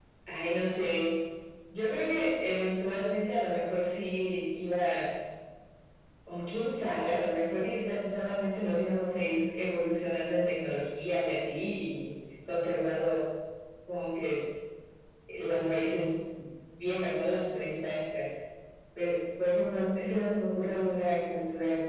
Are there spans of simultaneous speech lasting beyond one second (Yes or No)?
No